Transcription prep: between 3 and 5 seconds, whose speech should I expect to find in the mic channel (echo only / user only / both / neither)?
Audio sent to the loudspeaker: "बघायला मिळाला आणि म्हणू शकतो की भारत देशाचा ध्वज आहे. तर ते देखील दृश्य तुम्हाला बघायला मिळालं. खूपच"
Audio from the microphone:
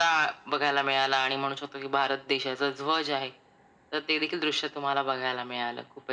echo only